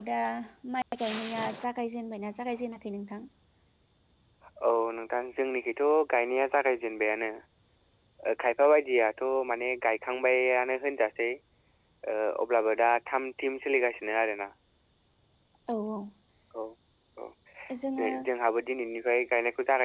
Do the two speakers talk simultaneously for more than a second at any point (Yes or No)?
No